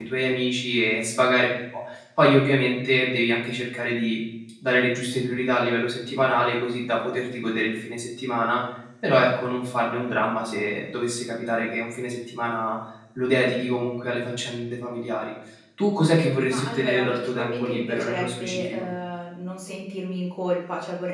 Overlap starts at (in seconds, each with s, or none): 16.5 s